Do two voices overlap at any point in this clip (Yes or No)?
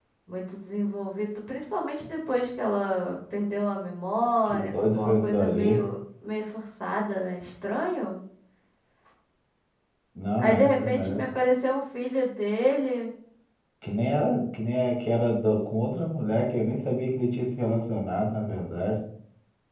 Yes